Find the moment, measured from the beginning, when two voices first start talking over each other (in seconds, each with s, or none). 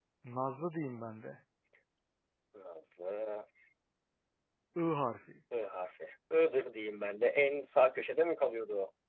none